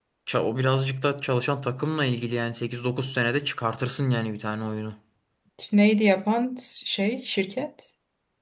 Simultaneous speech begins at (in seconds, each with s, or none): none